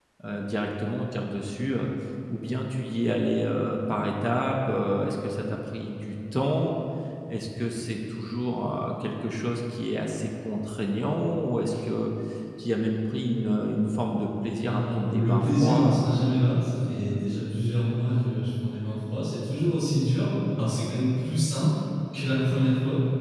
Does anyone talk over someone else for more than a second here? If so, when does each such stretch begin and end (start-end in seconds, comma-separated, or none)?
14.7-16.1